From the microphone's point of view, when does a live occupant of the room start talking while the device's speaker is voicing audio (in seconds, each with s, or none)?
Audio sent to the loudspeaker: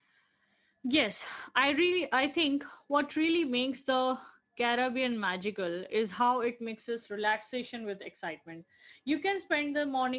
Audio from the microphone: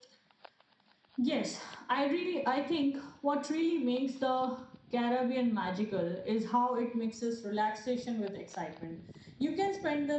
none